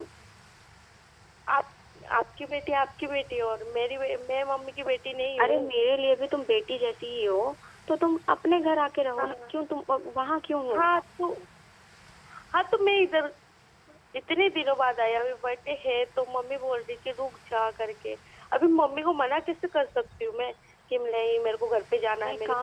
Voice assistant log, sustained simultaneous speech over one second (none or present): none